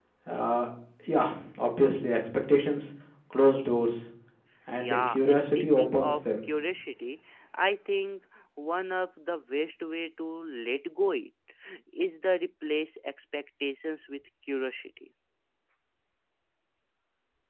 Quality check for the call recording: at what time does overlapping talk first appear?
4.8 s

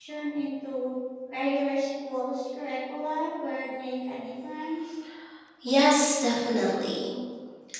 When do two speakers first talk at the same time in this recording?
none

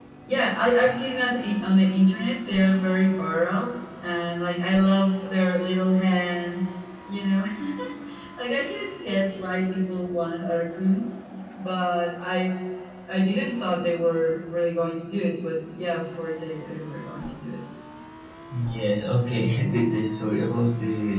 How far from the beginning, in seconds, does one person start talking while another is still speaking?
none

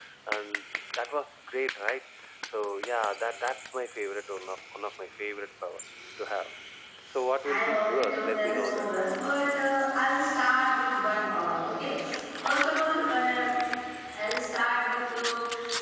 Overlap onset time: 7.4 s

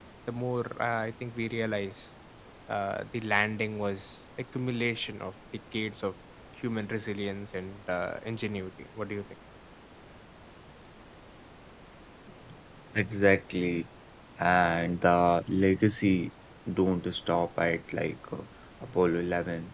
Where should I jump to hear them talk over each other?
none

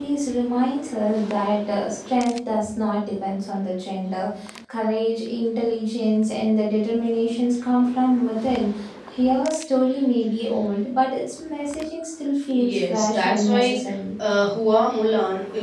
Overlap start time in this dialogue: 12.5 s

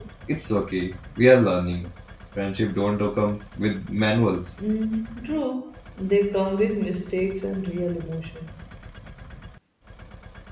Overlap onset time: none

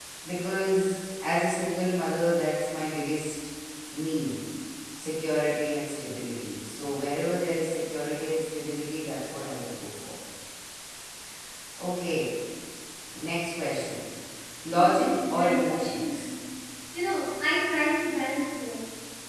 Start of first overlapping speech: 14.7 s

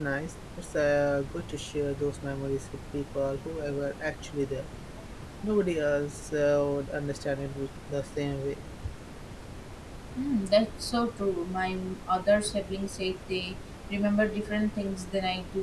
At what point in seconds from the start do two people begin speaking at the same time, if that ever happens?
none

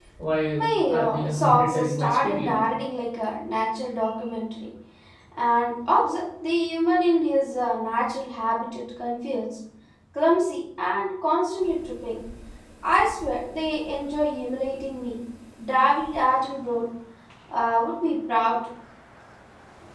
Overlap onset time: 0.9 s

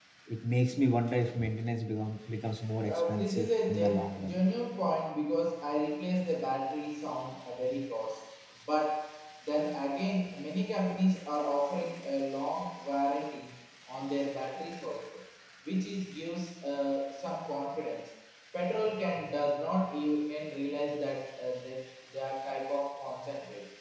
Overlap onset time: 2.9 s

